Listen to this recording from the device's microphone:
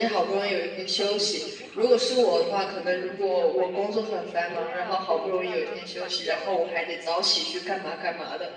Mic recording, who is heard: both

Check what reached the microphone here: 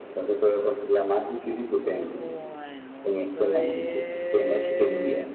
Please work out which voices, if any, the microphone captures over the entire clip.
both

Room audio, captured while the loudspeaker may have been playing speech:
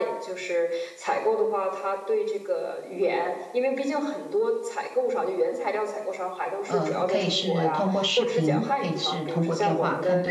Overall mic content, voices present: both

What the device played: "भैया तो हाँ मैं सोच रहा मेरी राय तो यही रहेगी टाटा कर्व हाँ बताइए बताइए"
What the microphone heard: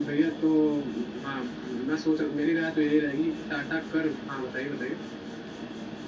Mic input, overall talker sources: echo only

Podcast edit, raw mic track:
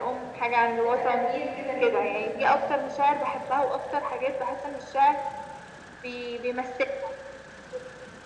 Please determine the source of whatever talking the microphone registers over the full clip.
both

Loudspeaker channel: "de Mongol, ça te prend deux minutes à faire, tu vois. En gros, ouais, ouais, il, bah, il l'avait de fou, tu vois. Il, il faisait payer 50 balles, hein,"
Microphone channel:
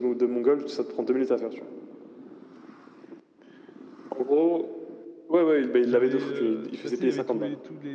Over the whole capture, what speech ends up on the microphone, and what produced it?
both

